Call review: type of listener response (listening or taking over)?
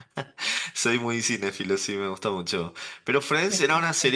listening